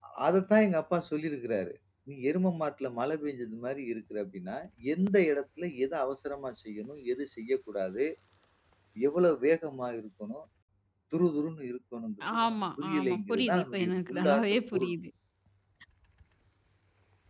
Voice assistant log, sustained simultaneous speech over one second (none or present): present